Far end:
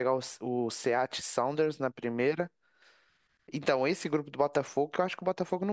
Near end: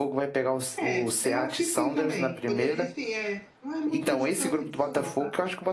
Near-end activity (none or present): present